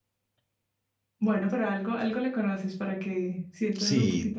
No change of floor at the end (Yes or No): No